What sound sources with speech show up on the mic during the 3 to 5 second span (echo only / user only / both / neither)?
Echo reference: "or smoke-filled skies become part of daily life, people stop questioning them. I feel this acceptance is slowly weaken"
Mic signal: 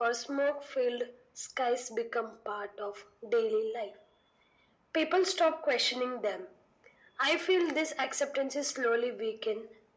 echo only